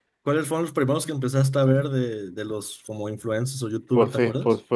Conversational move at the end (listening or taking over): taking over